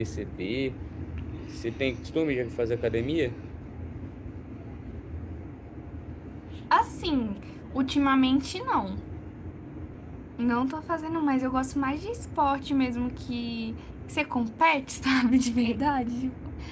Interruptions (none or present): none